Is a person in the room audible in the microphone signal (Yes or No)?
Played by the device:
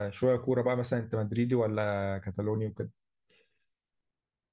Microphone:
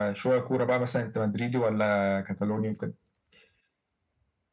No